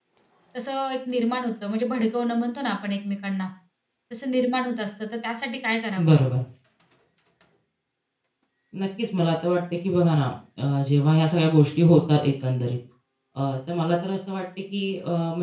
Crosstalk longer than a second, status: none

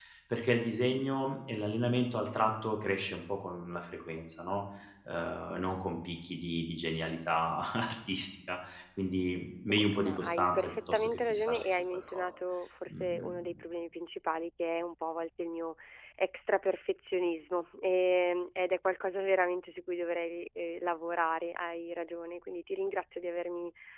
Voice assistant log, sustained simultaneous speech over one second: present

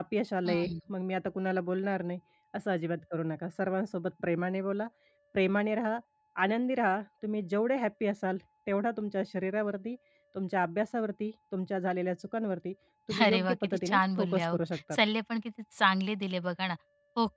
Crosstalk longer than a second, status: present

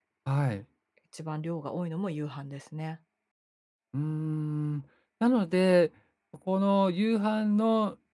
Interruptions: none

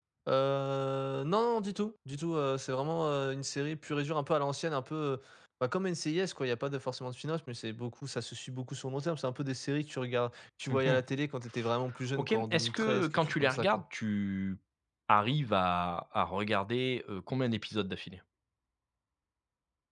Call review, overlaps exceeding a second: present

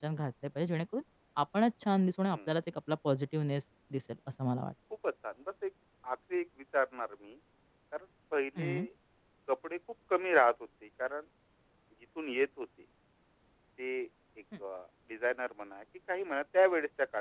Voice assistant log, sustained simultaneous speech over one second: none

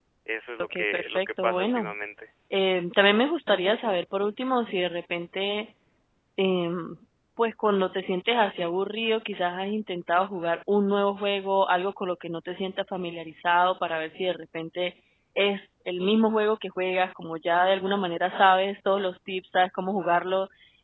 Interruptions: present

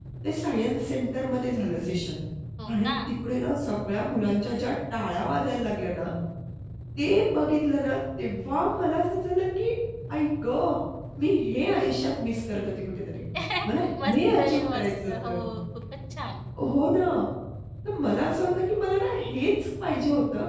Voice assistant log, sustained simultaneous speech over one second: present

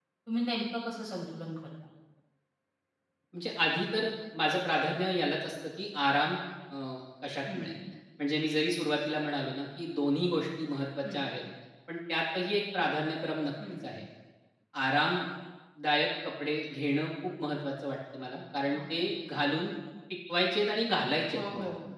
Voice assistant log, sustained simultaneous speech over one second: none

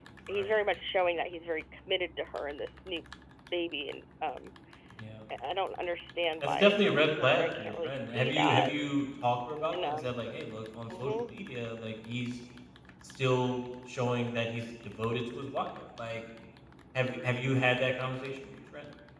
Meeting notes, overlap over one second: present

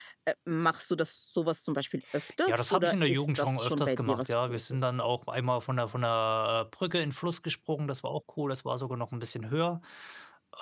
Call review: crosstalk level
present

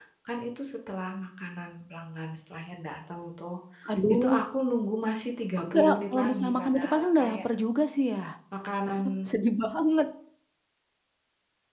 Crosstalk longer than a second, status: present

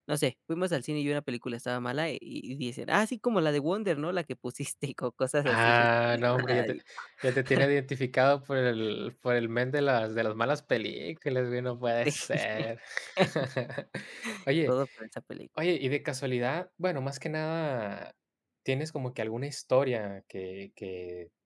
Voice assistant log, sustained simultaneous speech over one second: present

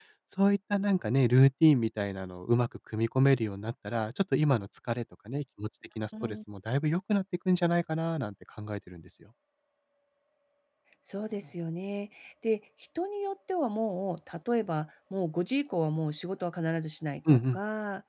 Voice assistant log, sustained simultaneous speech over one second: none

